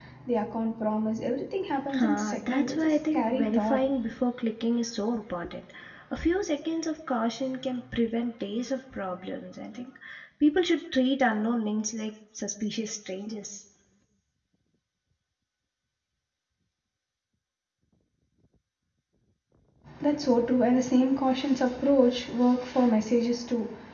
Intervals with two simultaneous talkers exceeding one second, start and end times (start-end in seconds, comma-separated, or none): 1.9-3.8